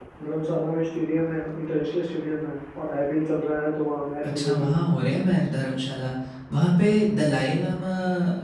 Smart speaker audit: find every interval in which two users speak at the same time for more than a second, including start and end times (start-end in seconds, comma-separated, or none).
none